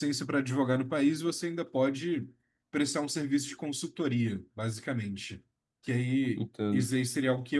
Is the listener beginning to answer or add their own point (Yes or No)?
No